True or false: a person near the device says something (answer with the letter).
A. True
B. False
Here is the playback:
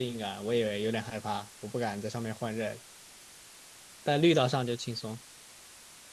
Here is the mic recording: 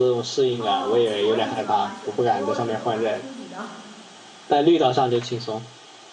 A